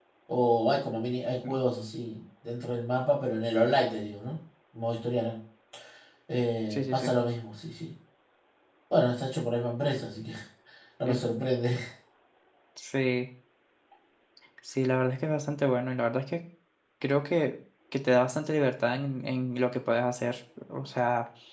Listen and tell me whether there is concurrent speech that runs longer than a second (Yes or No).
No